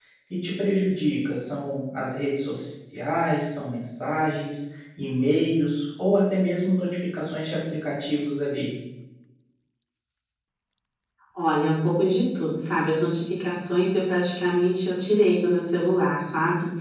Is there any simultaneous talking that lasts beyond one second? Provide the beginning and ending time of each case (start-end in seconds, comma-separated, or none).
none